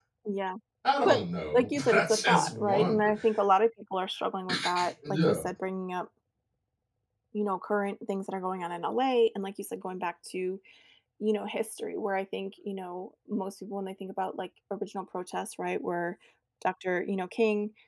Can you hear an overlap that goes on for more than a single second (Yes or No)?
Yes